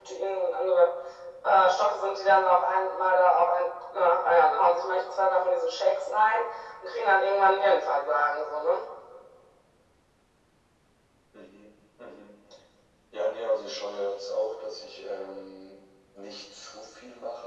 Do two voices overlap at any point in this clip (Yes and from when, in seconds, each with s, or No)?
No